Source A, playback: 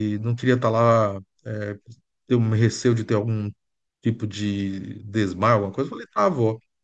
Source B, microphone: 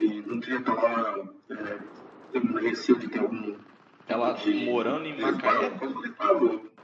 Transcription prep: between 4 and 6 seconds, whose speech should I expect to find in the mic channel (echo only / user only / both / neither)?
both